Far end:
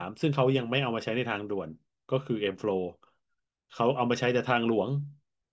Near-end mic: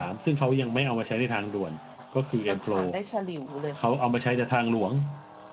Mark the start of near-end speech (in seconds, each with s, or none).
2.5 s